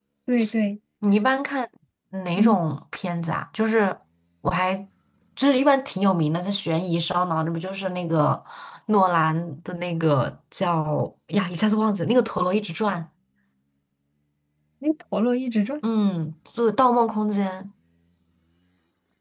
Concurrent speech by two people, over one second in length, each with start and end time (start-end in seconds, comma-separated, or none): none